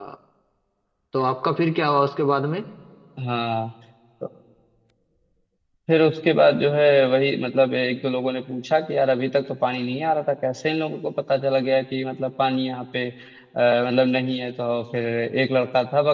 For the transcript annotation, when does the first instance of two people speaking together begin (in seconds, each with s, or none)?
none